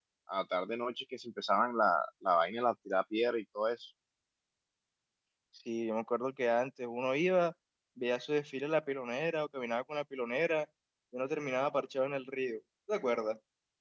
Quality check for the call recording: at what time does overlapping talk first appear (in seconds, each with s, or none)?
none